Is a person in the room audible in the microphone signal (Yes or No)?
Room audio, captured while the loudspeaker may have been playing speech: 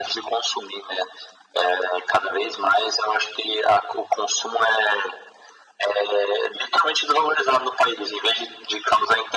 No